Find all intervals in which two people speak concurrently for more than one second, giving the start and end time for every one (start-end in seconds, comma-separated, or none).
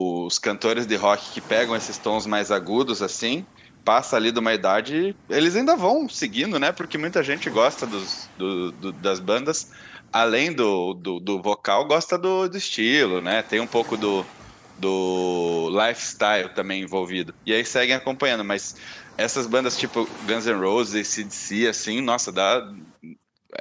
none